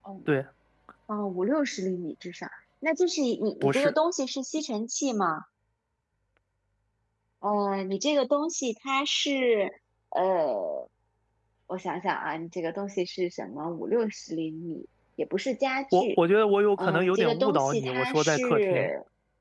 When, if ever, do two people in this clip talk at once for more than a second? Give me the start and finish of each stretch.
16.8-18.9

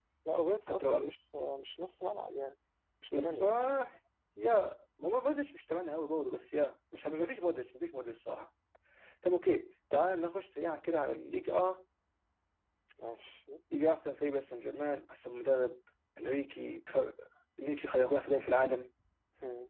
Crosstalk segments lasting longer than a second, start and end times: none

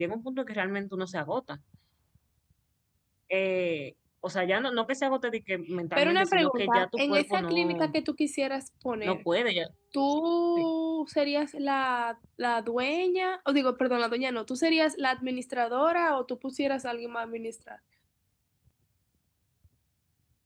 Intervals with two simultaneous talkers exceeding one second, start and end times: 6.0-7.9

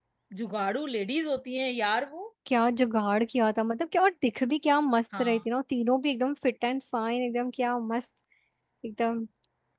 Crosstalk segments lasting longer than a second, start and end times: none

